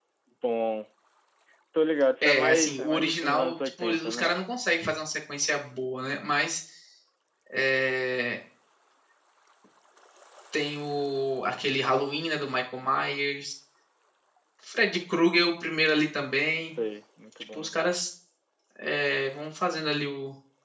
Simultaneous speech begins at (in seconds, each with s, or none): 2.2 s